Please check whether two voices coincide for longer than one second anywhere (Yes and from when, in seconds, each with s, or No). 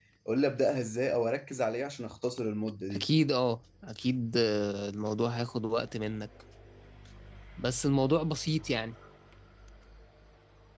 No